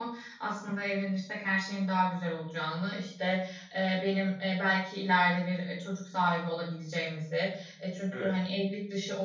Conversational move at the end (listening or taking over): listening